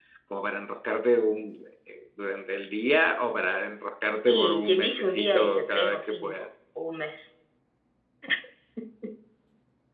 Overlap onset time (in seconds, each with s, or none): 4.3 s